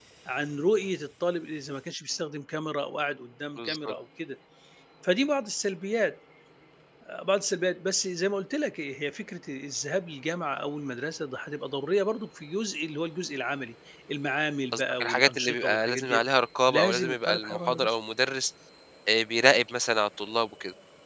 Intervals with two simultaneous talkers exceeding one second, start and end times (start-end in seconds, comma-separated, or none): 14.7-16.2, 16.7-17.9